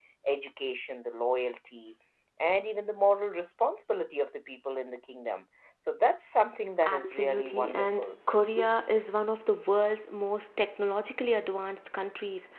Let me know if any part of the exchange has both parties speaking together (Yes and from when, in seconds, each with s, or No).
Yes, from 6.8 s